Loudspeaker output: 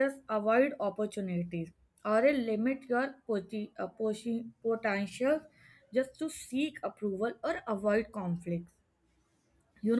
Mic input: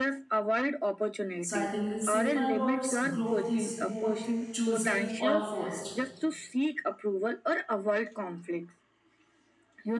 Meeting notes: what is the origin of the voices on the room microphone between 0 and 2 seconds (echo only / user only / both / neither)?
both